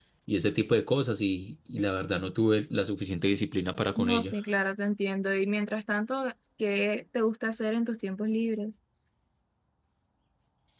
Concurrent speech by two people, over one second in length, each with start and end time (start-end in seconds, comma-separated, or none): none